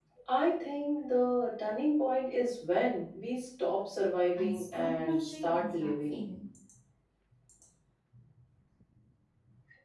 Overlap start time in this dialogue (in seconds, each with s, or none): 4.4 s